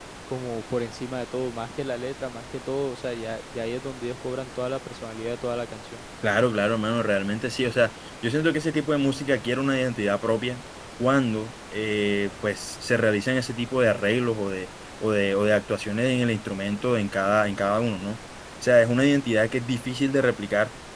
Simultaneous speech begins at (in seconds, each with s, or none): none